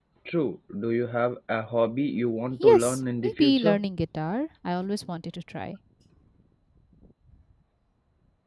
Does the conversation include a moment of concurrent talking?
Yes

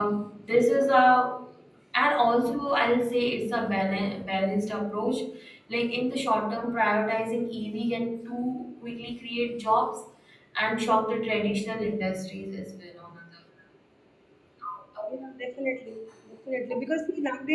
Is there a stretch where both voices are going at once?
No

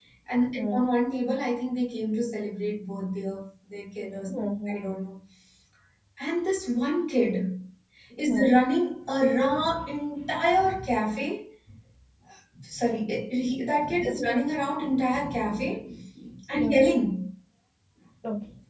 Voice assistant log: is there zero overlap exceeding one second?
Yes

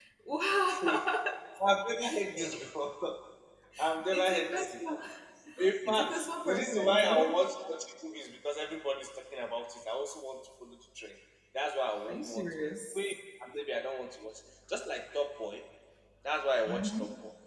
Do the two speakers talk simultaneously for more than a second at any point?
Yes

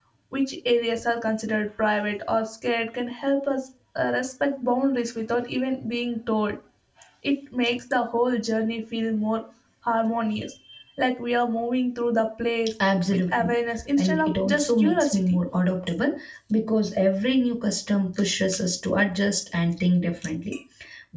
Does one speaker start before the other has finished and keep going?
Yes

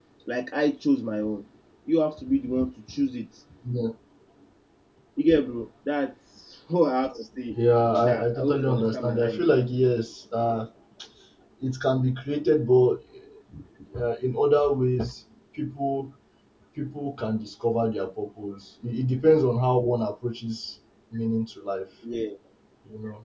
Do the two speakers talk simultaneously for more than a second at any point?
Yes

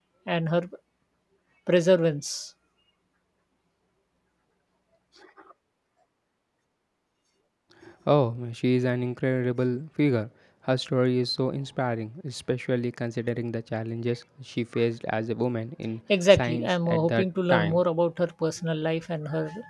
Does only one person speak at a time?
No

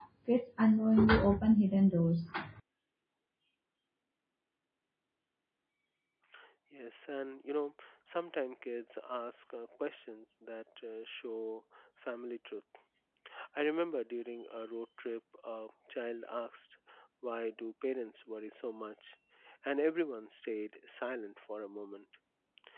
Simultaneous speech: No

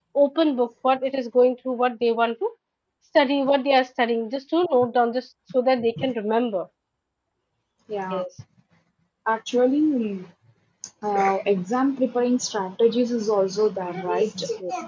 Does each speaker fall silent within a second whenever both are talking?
Yes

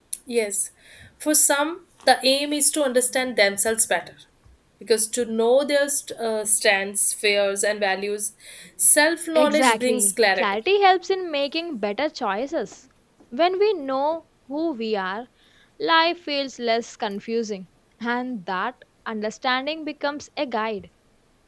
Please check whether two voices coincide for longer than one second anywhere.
Yes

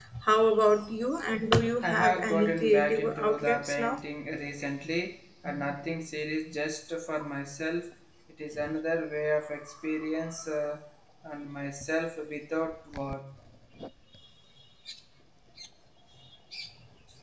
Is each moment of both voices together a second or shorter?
No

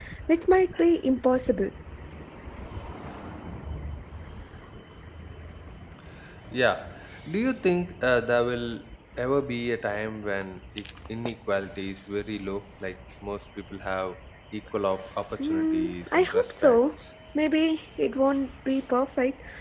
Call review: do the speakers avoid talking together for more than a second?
No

